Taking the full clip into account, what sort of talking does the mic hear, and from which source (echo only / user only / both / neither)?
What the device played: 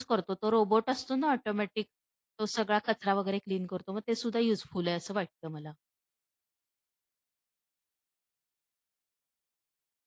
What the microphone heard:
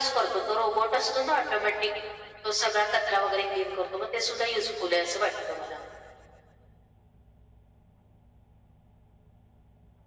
echo only